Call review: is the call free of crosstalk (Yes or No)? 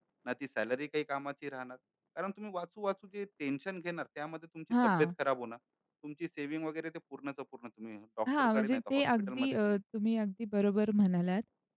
No